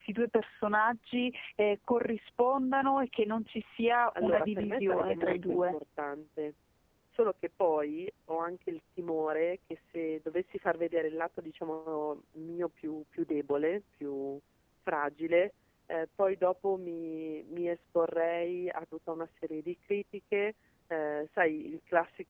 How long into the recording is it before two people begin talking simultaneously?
4.1 s

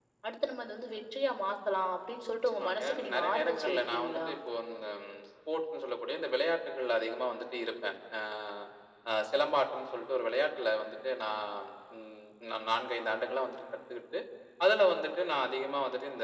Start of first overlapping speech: 2.5 s

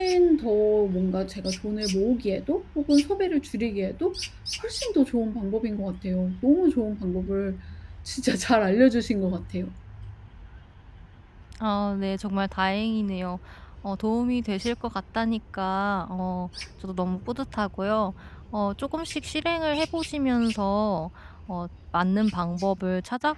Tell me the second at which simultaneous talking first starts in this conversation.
none

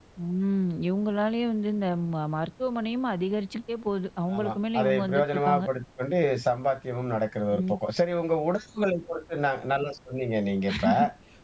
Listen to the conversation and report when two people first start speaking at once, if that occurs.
4.3 s

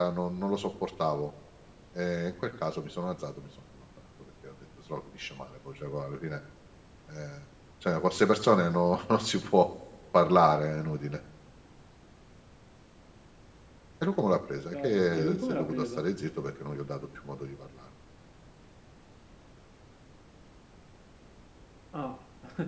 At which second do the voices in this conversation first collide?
14.7 s

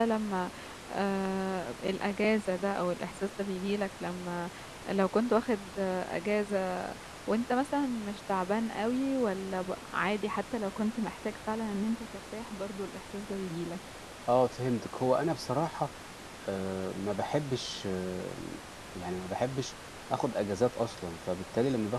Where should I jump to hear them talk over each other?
none

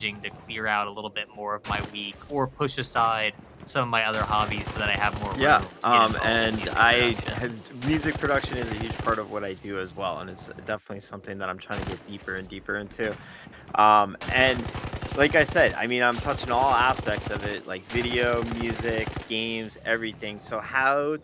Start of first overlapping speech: 5.4 s

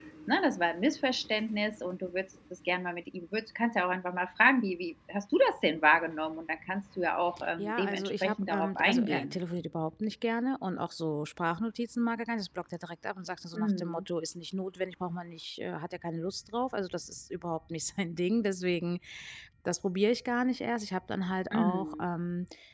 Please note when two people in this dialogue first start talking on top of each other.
7.6 s

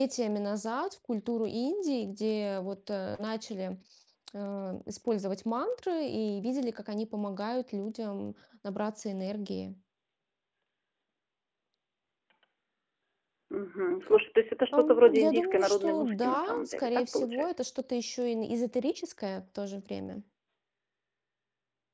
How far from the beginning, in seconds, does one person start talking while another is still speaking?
14.7 s

